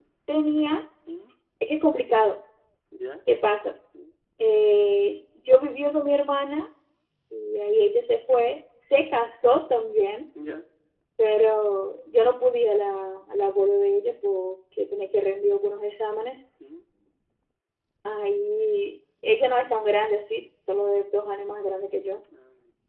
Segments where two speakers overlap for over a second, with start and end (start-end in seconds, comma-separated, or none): none